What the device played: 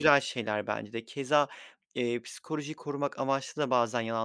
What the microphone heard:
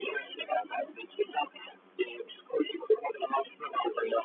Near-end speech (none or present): none